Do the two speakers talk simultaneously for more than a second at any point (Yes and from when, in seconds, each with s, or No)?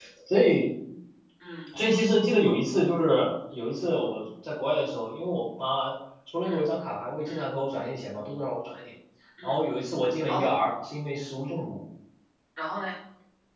No